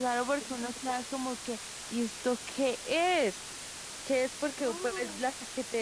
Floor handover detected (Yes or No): No